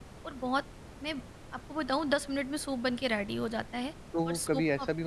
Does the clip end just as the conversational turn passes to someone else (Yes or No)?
Yes